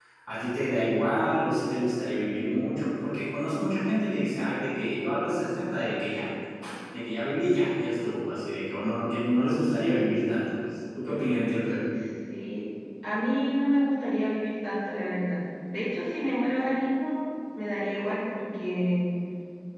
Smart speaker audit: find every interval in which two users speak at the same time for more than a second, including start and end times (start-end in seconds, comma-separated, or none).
none